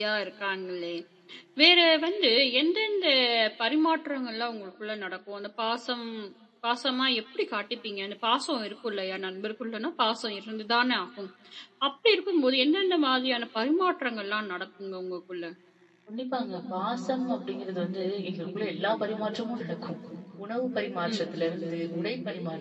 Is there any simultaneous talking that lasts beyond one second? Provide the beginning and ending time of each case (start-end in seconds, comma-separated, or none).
none